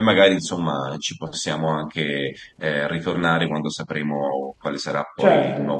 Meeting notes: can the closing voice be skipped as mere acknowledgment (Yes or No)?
No